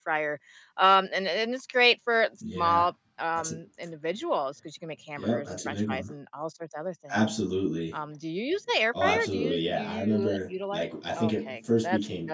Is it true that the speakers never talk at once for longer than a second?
No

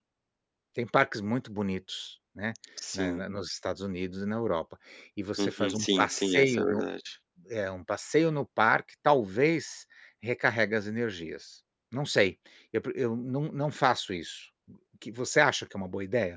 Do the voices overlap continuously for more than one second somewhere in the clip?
Yes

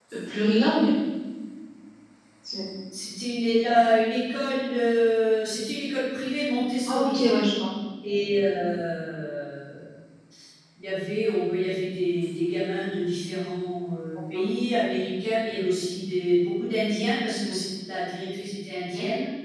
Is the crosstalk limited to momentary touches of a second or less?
Yes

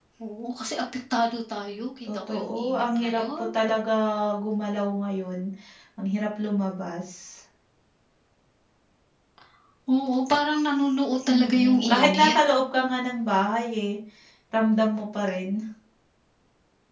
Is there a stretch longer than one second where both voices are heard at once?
Yes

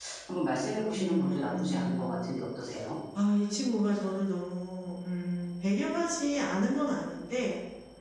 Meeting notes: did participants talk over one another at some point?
Yes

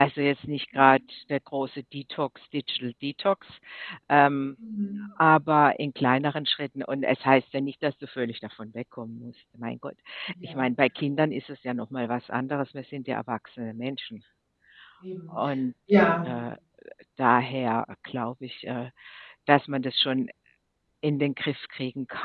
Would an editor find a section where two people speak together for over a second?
No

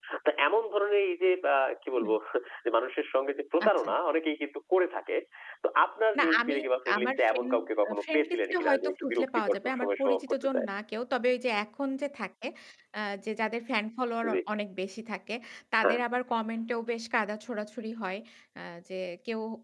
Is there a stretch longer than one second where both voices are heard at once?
Yes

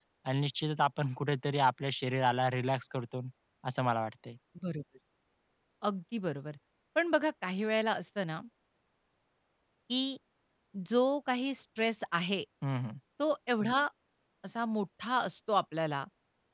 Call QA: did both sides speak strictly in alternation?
Yes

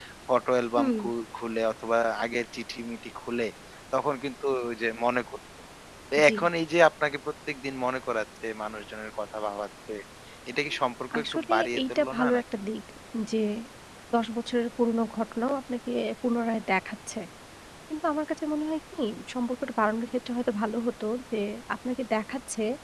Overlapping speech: Yes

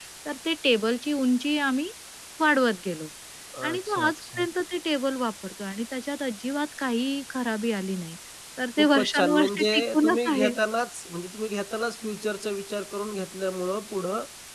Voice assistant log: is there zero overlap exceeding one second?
No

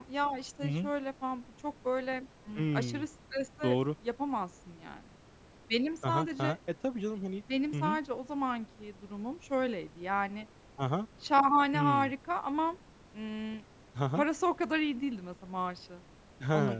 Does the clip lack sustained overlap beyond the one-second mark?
Yes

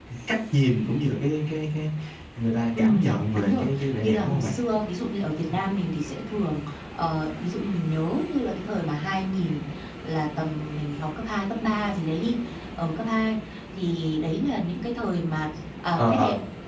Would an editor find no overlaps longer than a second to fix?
No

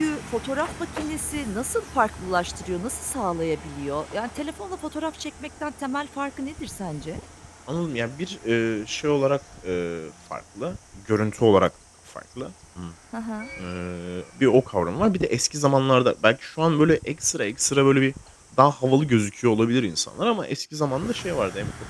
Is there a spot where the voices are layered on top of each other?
No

